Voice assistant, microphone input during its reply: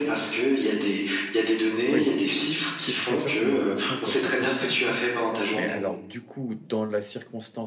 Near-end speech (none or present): present